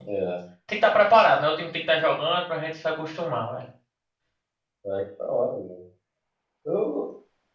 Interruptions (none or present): none